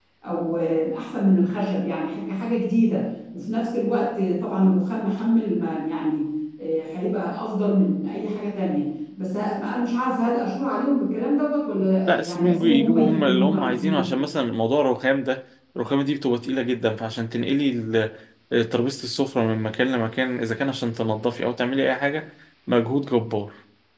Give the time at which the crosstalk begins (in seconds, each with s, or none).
12.1 s